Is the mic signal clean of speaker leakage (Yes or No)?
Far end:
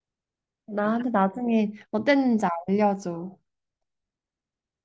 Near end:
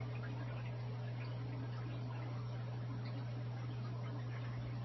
Yes